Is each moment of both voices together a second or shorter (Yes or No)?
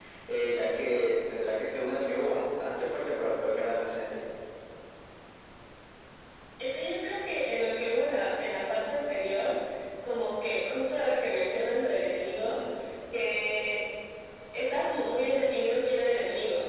Yes